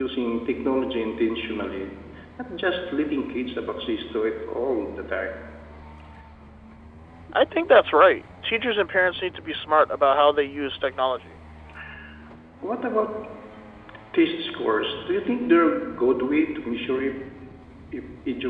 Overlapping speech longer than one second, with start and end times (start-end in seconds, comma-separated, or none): none